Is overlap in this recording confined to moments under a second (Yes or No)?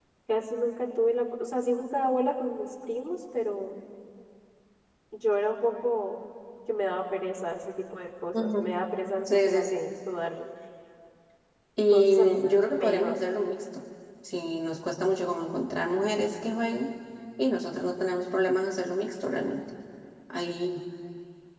No